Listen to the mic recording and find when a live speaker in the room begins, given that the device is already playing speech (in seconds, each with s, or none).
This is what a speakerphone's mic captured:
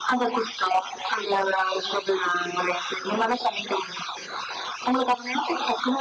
none